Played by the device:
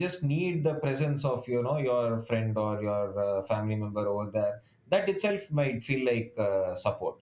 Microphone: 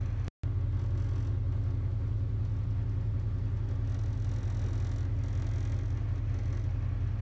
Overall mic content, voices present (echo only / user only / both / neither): neither